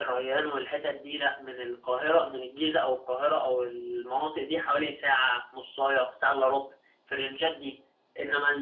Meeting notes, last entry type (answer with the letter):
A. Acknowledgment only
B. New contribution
A